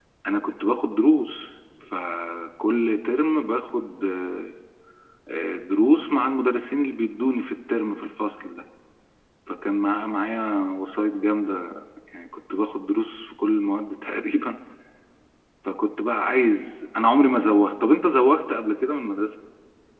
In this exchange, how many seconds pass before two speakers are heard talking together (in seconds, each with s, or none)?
none